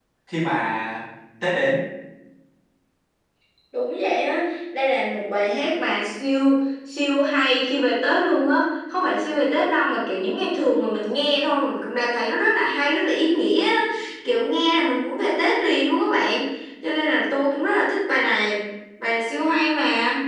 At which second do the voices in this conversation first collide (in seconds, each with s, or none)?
none